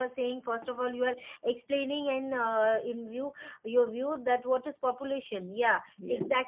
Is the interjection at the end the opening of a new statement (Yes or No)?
No